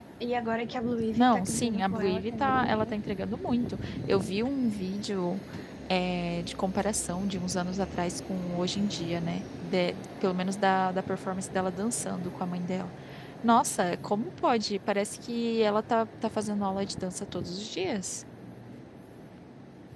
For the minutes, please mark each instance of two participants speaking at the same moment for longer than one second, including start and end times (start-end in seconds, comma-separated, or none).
1.1-2.9